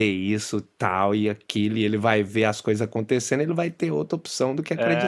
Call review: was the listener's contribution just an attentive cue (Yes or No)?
No